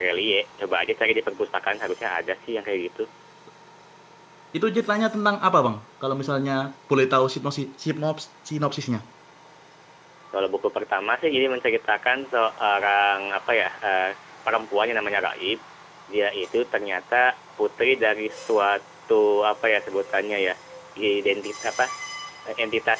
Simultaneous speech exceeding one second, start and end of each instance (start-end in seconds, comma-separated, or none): none